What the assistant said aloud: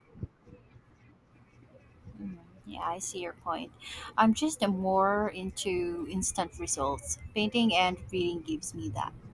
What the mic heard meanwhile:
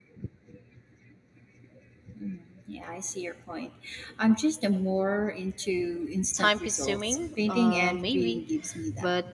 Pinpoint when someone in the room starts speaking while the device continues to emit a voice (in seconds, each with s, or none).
6.3 s